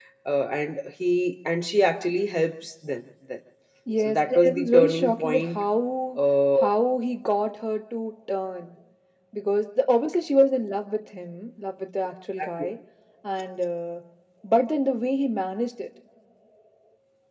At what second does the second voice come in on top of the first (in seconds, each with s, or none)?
4.0 s